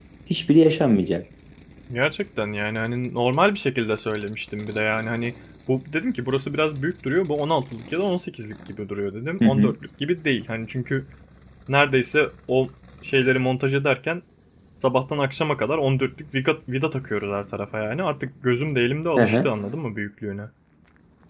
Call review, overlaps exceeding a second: none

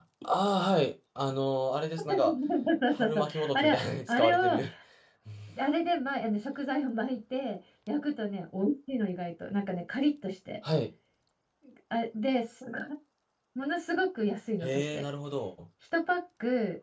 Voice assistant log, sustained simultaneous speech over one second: present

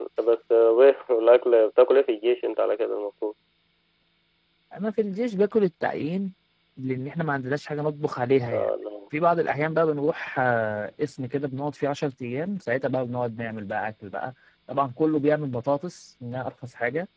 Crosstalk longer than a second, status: none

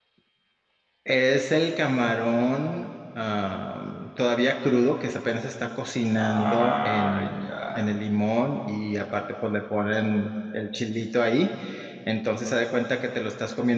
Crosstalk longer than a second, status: present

